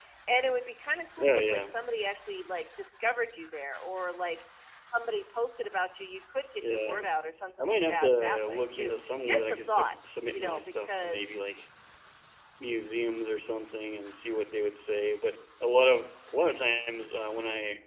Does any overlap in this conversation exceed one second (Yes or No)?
Yes